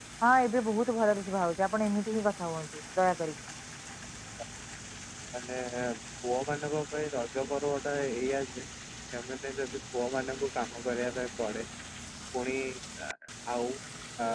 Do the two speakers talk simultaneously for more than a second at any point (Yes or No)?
No